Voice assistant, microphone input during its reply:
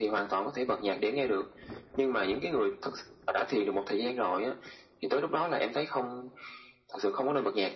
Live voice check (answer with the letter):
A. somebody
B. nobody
B